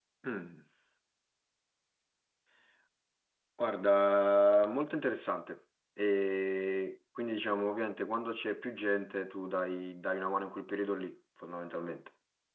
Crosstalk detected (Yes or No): No